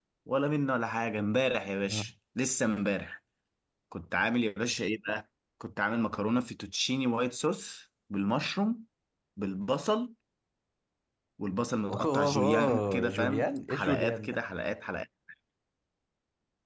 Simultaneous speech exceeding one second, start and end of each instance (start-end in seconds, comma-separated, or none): 11.9-14.4